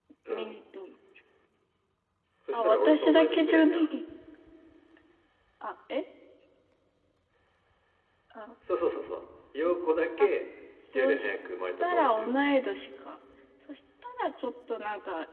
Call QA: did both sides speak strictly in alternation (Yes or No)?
No